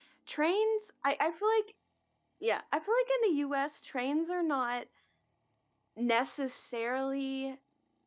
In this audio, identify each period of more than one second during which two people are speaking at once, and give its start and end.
none

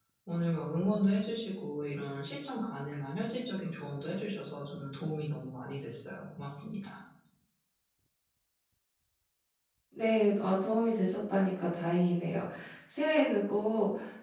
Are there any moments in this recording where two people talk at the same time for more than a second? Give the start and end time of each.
none

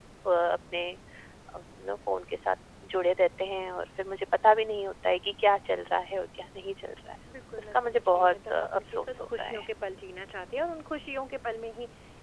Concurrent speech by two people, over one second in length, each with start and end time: 7.6-9.6

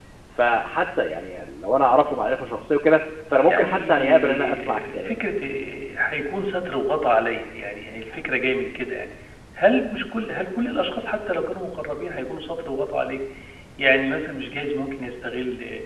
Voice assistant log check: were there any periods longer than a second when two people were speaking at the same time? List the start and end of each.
3.5-5.2

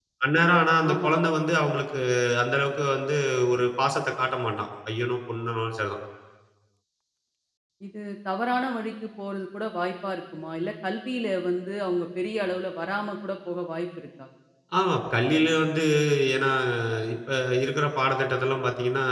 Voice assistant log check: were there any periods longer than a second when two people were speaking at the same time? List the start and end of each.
none

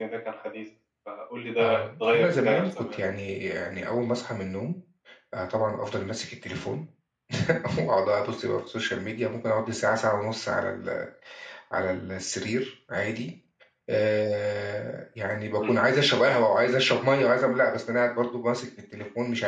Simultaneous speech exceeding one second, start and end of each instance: 1.6-3.0

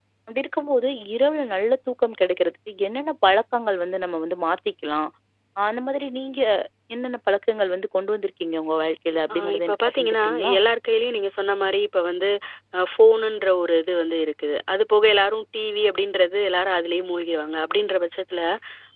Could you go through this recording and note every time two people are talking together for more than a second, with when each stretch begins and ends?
9.3-10.5

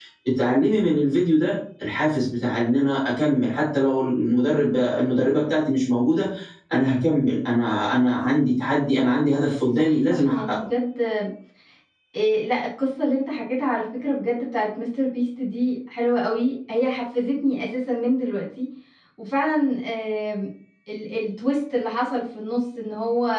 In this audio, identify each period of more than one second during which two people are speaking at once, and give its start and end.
9.3-10.7

